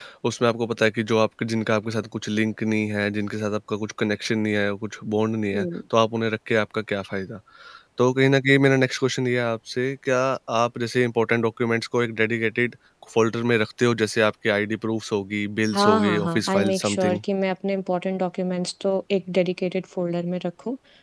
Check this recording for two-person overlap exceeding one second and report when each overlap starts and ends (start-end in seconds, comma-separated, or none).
15.7-17.2